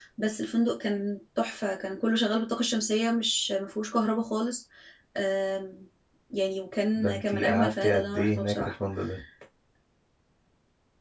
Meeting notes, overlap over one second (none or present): present